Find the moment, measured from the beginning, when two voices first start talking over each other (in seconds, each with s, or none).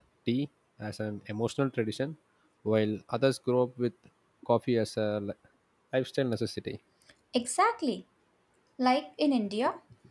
none